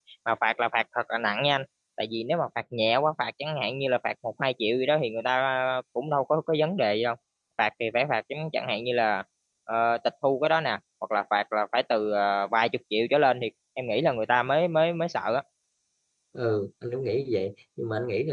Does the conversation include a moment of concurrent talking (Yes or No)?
No